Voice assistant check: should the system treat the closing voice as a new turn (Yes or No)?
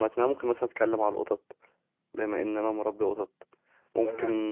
No